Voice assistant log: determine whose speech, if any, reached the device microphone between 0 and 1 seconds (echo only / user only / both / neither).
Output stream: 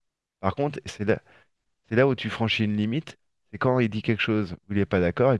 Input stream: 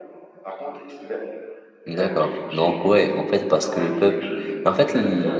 echo only